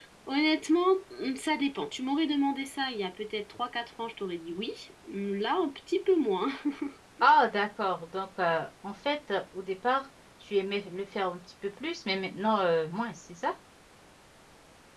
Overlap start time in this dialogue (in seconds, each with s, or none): none